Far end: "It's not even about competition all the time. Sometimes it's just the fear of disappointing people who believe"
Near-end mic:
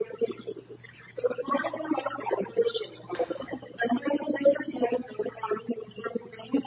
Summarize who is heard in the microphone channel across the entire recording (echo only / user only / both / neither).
echo only